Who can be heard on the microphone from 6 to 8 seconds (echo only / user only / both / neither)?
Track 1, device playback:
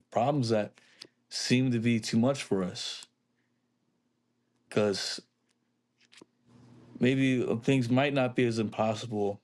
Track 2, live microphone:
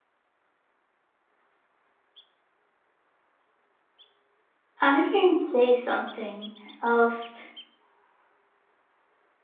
user only